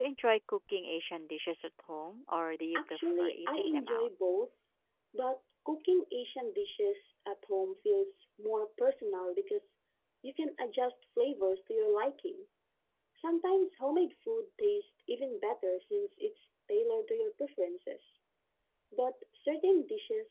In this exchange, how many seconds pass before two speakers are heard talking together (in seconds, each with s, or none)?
2.8 s